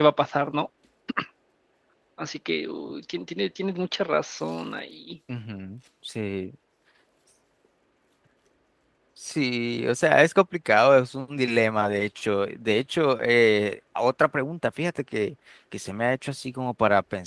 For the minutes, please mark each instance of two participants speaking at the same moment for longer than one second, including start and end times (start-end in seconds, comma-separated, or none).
none